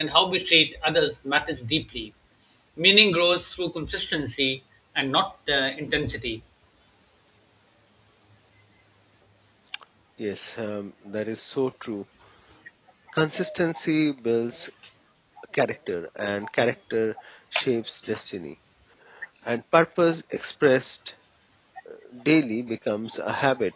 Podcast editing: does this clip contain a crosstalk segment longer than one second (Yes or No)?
No